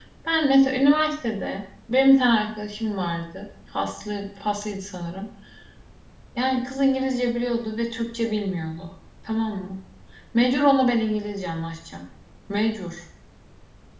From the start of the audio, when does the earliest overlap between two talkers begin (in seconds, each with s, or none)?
none